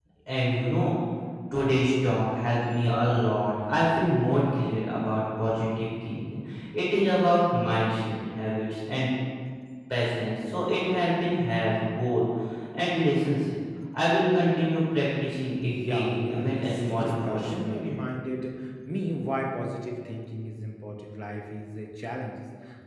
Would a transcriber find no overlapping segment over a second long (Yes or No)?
No